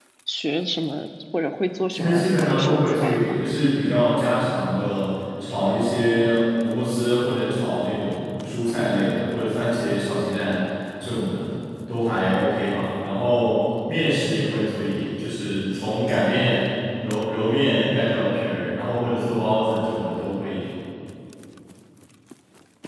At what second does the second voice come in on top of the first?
1.9 s

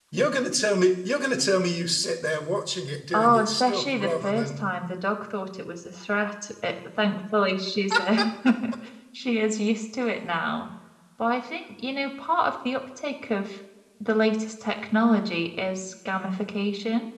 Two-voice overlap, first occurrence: 3.1 s

